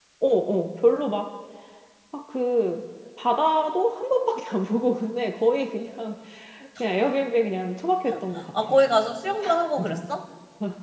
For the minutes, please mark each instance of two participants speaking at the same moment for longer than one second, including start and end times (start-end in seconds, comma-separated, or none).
none